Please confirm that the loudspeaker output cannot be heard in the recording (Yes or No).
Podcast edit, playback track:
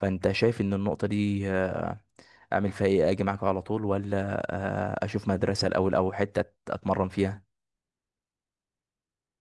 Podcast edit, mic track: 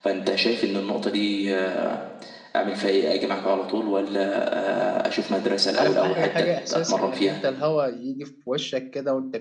No